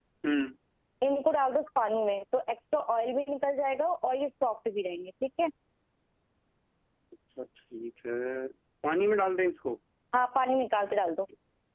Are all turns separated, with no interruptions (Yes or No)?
Yes